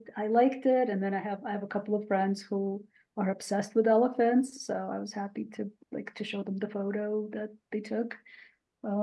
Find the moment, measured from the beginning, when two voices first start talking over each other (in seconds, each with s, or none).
none